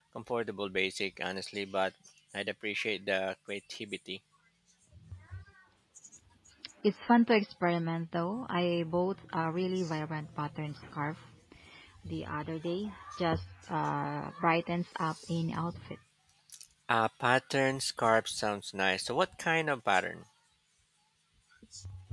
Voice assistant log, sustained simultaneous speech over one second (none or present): none